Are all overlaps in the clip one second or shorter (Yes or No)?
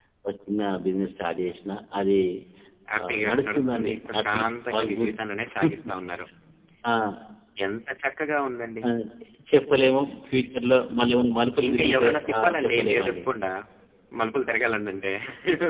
No